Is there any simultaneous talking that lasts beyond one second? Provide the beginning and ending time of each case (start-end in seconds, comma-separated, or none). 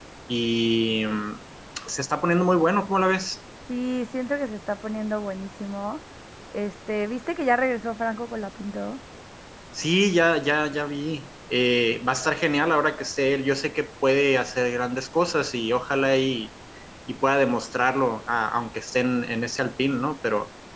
none